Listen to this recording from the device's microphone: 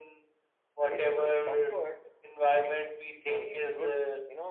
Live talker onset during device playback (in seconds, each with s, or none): 0.8 s